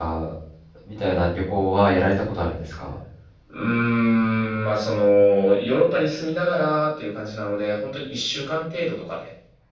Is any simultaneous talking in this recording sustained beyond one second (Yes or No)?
No